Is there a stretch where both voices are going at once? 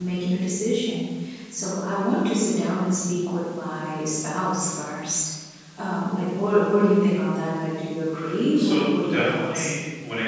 Yes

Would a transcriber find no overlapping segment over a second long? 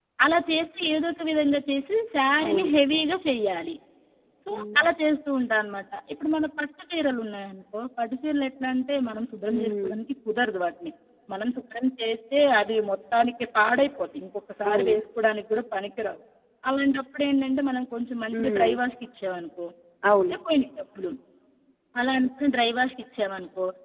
Yes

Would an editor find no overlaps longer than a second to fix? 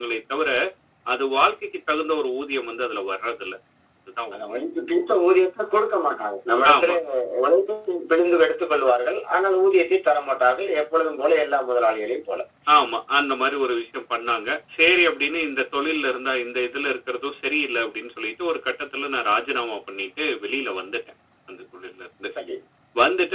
Yes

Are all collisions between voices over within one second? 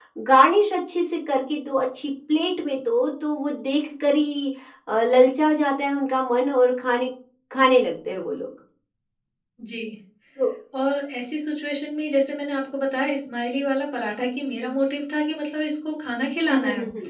Yes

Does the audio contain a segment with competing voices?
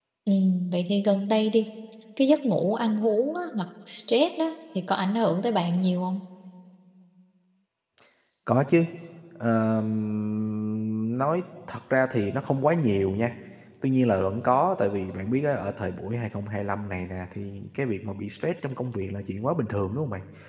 No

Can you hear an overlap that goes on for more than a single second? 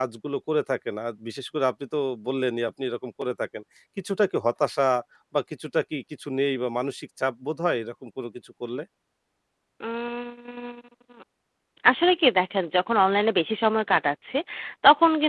No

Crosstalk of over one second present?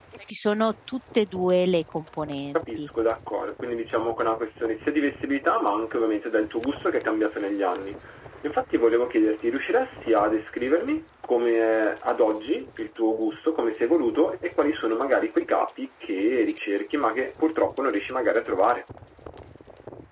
No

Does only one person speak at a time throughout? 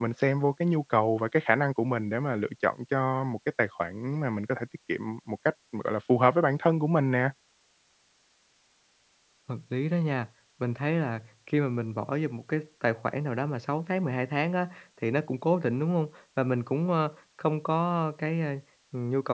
Yes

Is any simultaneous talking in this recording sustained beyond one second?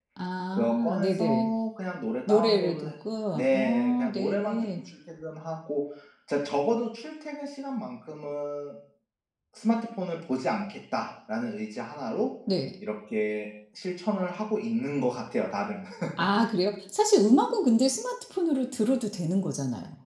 Yes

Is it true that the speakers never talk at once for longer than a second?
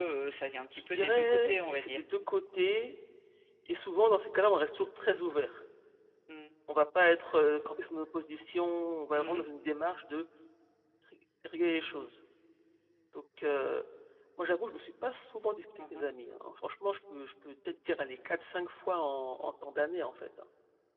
No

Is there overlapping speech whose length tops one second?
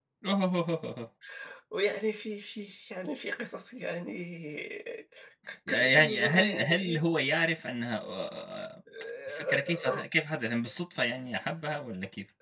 Yes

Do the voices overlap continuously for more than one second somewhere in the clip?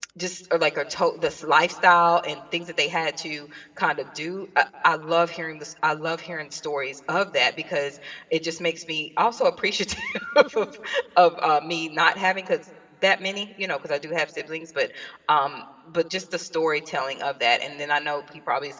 No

